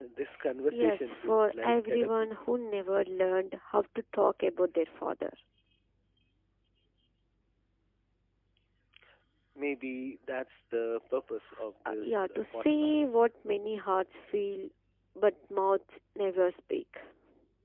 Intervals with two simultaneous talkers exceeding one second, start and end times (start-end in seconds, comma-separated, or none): 0.7-2.3, 11.9-13.2